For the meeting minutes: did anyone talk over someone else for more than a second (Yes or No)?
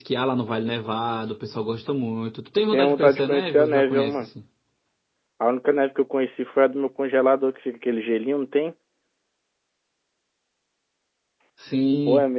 Yes